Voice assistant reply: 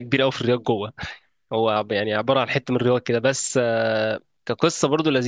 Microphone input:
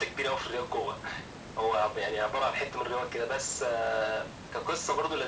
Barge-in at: none

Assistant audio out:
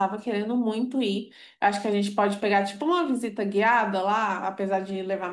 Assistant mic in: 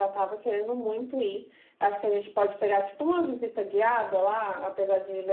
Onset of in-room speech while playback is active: none

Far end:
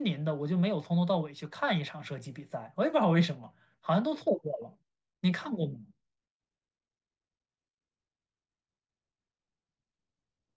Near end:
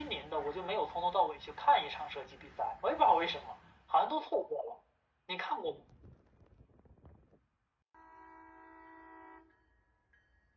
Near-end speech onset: none

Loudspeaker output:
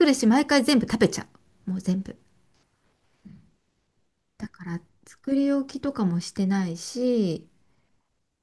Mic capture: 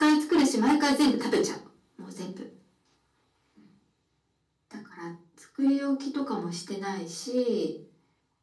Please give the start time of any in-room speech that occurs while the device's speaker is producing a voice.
none

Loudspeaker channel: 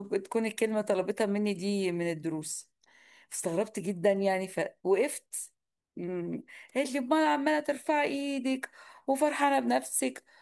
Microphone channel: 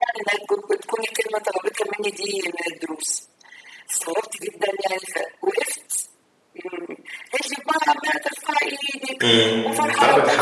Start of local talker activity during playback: 9.2 s

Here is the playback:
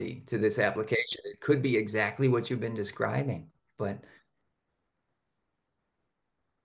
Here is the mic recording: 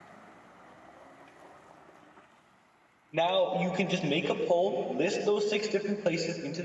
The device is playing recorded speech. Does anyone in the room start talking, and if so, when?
3.1 s

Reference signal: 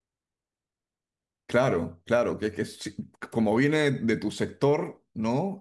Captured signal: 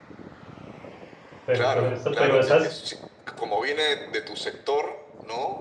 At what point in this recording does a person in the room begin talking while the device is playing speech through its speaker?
1.4 s

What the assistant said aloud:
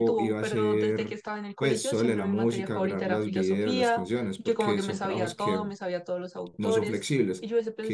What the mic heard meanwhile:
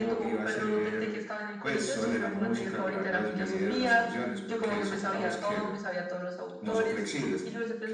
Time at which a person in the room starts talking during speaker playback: none

